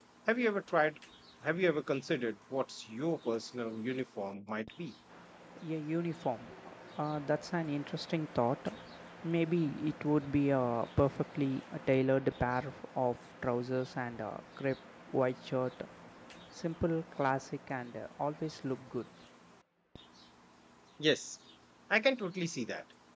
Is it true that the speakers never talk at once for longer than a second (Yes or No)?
Yes